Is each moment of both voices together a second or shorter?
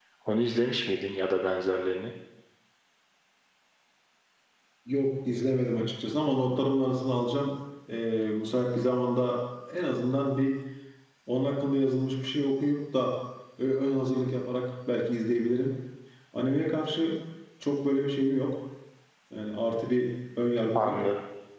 Yes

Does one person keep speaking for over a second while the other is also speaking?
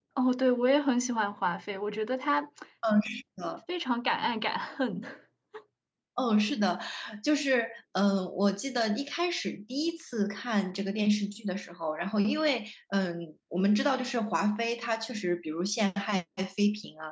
No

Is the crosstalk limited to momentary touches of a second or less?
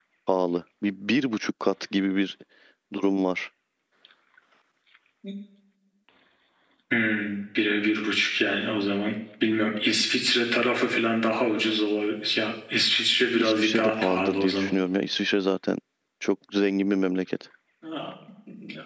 No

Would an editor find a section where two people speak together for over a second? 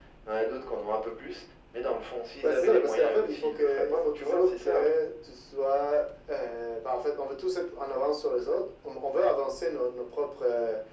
Yes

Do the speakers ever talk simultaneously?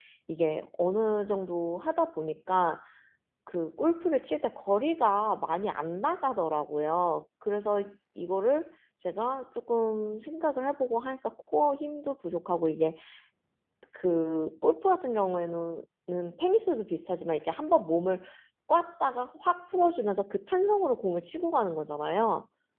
No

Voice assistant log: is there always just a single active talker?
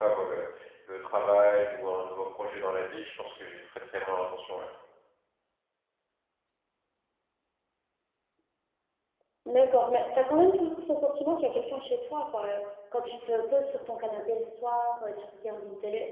Yes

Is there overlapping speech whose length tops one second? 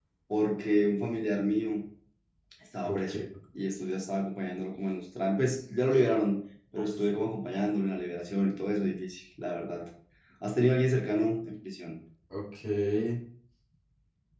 No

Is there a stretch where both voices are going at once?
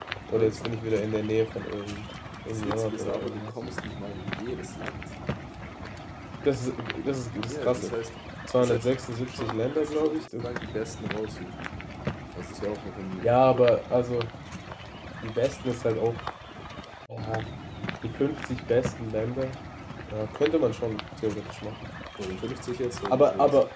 Yes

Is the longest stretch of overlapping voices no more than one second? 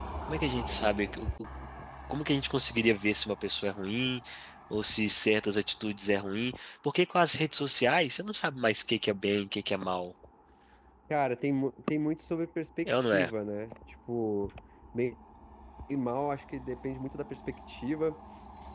Yes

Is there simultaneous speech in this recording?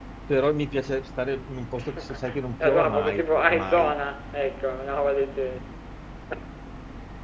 Yes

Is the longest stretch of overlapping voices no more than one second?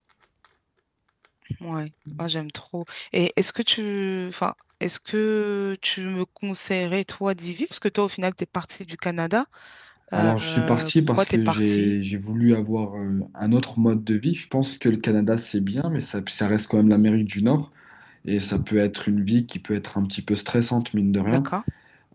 No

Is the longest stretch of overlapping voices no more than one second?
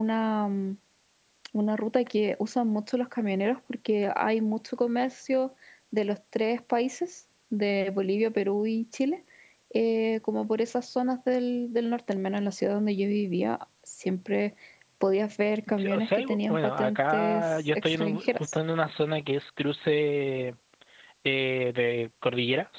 No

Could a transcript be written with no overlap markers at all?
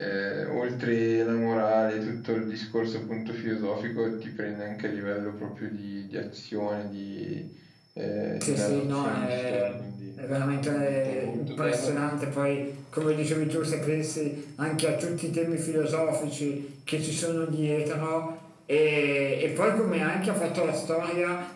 No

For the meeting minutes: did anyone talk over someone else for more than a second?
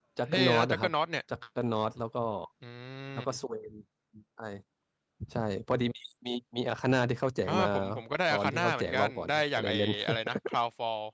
Yes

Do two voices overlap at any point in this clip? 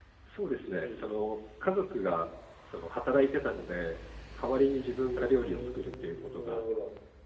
Yes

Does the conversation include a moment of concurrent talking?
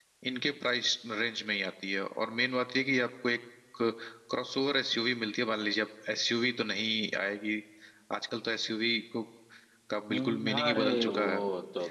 Yes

